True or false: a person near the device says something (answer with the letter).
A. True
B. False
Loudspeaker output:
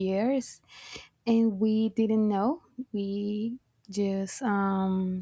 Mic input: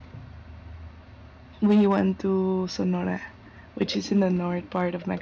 A